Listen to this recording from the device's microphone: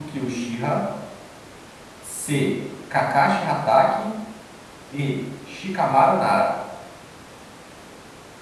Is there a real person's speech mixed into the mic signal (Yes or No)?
Yes